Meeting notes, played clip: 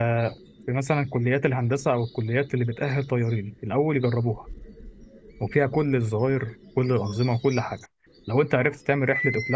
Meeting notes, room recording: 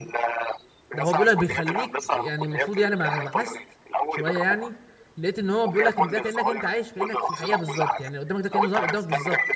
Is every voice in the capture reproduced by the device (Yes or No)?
No